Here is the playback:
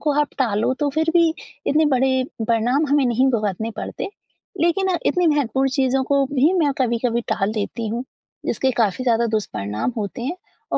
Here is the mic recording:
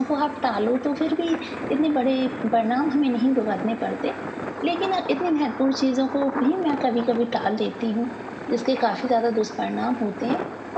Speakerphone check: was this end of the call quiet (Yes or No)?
Yes